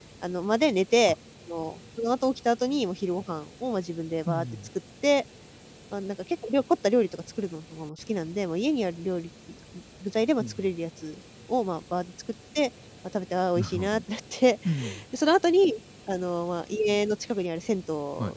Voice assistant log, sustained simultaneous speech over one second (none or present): none